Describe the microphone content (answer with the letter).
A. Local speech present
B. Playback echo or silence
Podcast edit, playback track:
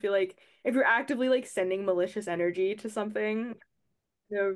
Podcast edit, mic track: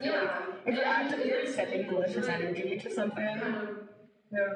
A